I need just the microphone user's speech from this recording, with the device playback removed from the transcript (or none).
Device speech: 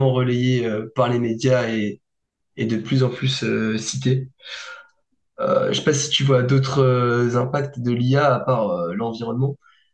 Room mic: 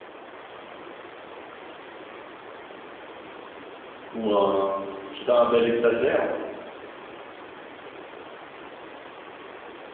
ou un, je sais pas, un bel espace vert.